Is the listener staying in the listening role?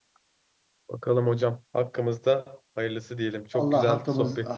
No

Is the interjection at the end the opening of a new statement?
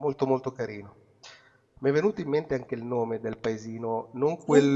No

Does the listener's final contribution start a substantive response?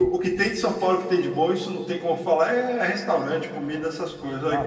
Yes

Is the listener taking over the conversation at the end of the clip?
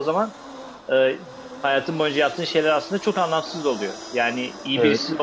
No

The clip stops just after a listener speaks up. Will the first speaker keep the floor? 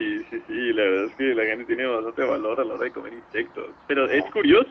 Yes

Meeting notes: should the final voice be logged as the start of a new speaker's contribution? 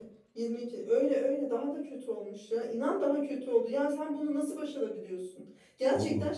No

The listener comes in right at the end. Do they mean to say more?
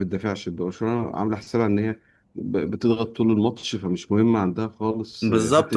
Yes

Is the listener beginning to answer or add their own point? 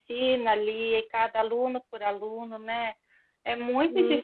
No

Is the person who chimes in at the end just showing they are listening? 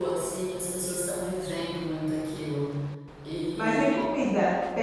No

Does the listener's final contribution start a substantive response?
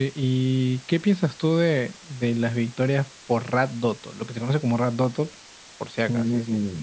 Yes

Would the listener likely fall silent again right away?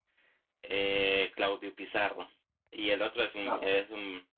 Yes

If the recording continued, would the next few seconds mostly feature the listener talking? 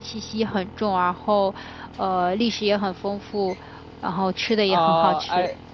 Yes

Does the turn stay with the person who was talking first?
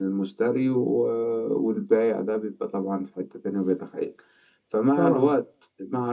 Yes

